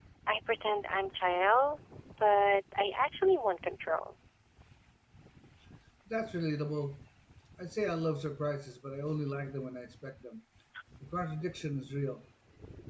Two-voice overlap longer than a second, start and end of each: none

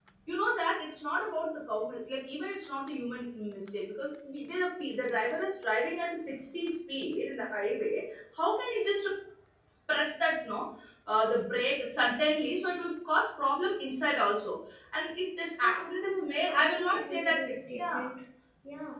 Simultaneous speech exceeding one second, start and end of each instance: 15.6-18.0

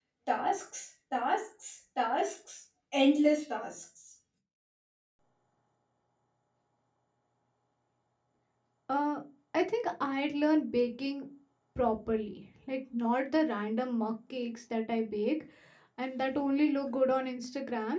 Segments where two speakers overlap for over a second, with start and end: none

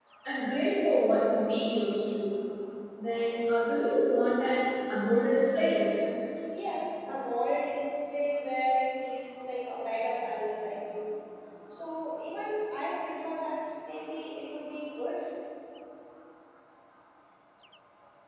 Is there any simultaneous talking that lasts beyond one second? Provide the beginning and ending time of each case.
none

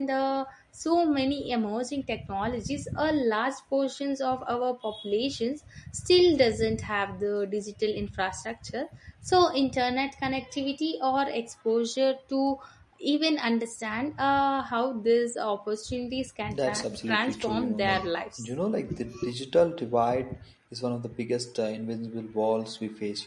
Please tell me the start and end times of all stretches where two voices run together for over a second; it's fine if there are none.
16.5-18.6

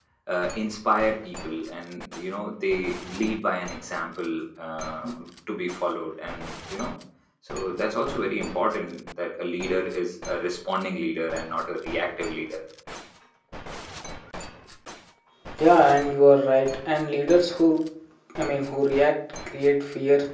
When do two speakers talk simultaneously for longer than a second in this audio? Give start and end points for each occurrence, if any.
none

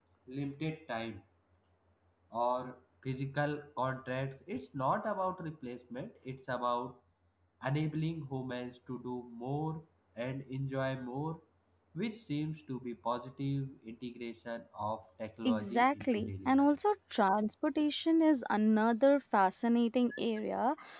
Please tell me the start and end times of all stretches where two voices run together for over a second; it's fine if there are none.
15.5-16.7

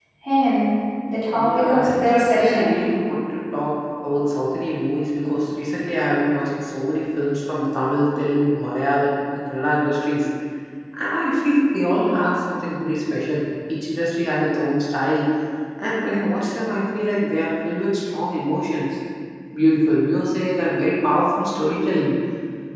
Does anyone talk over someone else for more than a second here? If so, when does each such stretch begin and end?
1.3-2.7

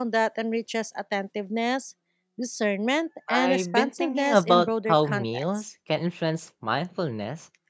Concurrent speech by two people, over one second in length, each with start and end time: 3.3-5.6

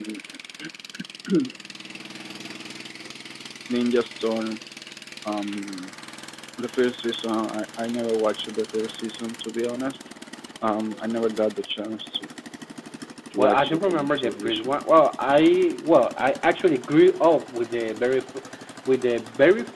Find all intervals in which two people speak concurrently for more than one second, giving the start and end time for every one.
13.4-14.7

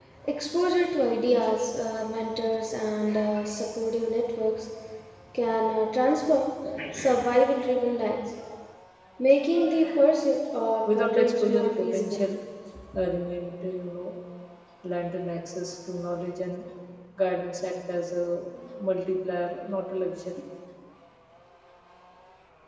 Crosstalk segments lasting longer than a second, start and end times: 10.9-12.2

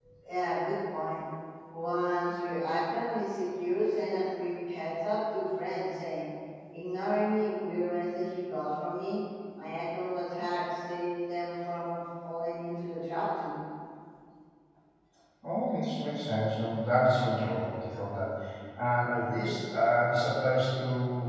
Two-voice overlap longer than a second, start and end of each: none

